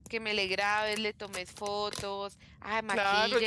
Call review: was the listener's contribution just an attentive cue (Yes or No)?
No